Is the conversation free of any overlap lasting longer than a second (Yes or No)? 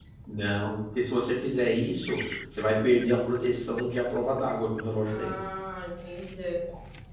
Yes